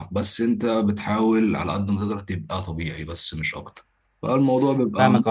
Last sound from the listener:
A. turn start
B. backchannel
A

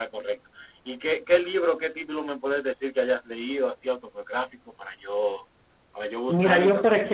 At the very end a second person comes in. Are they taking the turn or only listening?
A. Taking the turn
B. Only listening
A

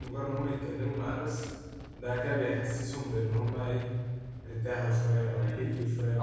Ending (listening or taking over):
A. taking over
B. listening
A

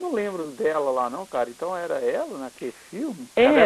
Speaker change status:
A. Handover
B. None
B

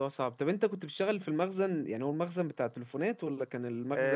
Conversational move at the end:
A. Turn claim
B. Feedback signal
A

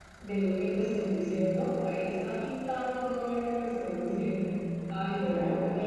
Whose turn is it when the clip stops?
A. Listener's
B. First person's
B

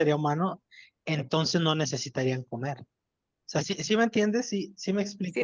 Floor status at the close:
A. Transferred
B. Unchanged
A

